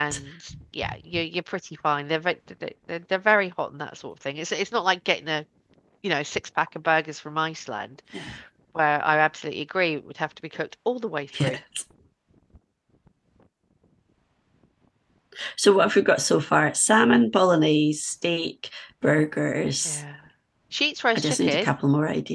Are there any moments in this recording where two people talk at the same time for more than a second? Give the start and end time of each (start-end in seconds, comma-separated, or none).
none